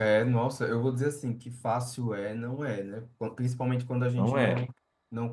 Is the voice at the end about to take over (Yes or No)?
No